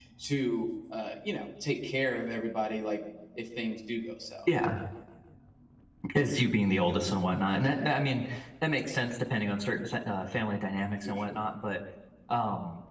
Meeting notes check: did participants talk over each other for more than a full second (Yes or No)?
No